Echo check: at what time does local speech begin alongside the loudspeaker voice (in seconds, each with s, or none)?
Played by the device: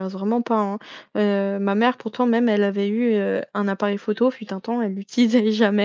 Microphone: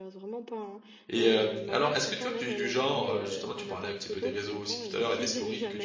1.1 s